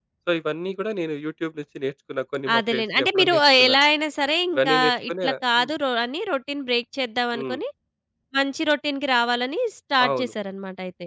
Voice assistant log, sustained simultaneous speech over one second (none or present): present